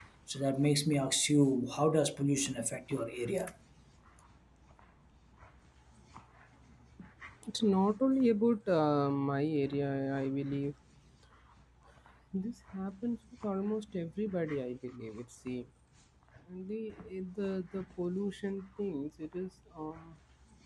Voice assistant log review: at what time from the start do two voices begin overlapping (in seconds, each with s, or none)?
none